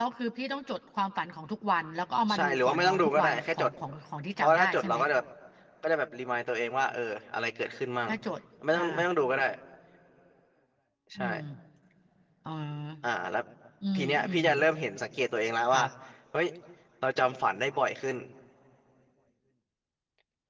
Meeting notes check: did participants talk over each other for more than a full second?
Yes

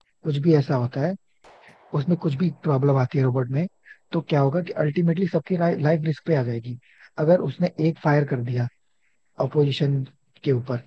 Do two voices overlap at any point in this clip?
No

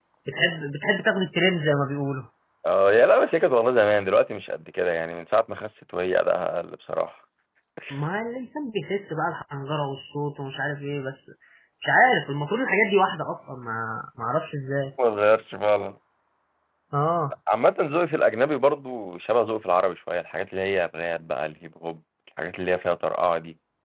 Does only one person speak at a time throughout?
Yes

